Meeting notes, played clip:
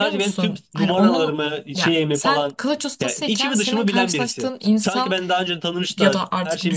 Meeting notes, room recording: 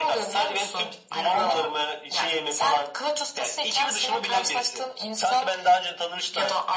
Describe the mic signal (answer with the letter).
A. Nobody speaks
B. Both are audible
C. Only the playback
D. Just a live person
C